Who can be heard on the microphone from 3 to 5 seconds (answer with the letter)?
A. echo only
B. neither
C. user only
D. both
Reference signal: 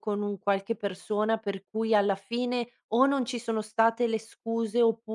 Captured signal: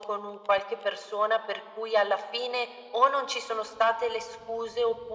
A